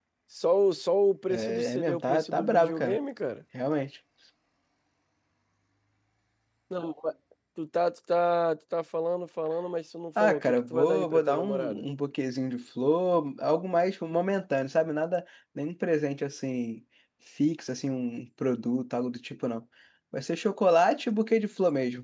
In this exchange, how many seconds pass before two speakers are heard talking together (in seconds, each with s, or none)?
1.3 s